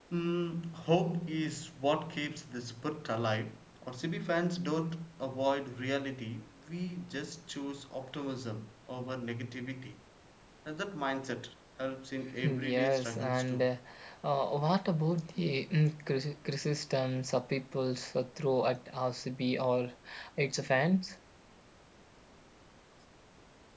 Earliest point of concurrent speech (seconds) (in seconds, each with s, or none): 12.4 s